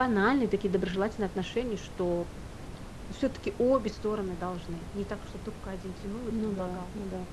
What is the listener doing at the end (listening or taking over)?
taking over